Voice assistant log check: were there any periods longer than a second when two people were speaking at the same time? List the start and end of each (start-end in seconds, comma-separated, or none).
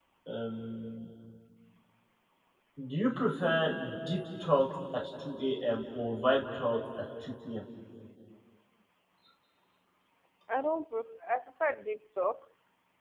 none